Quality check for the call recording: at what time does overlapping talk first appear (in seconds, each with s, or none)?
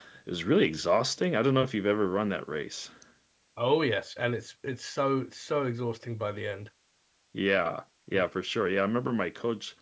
none